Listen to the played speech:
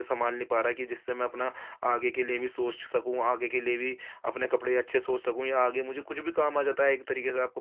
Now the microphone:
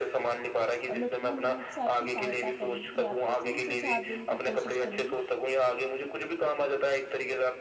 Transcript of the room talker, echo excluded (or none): और मैं पूर्ण रूप से आपकी सहायता करूँगी, आपको सही सुझाव देने की कोशिश करूँगी